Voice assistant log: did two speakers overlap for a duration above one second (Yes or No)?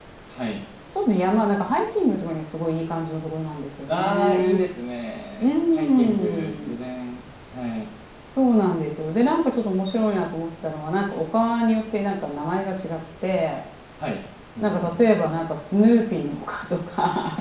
Yes